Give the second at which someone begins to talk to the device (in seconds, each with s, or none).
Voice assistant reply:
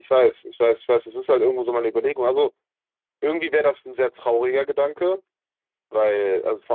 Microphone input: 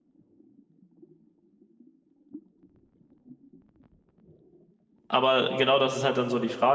5.1 s